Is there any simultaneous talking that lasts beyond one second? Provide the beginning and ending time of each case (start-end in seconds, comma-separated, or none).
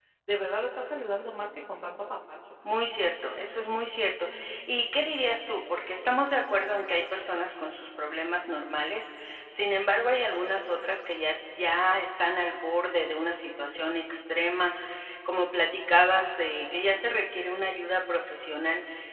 none